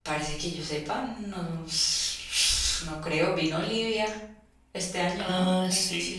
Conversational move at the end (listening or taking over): taking over